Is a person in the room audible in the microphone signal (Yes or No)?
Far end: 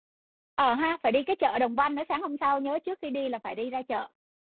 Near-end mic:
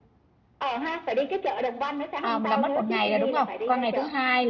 Yes